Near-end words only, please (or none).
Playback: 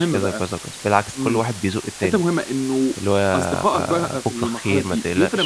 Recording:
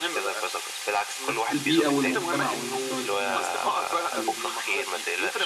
نَفْس البيئة والمُجتمَع والمستوى الاجتماعي، صح، حلو آه.